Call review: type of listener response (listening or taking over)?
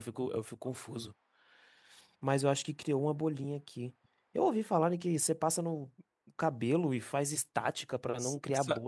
taking over